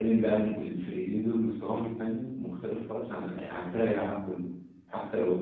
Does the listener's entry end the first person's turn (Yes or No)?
No